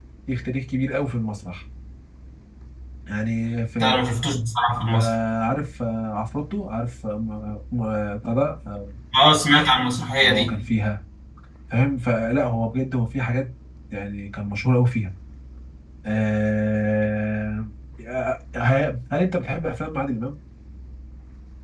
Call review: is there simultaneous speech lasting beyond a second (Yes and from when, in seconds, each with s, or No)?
No